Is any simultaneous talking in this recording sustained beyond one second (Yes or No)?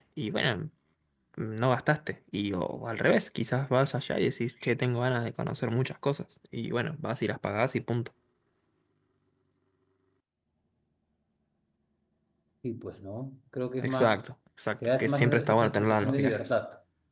Yes